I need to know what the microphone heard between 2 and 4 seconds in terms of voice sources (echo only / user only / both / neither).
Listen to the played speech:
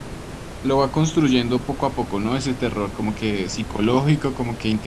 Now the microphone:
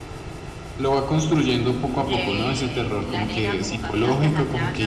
both